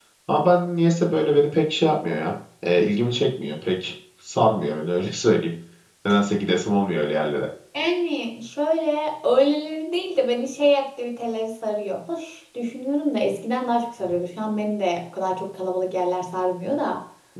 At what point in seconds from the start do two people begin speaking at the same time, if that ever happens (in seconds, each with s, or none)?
none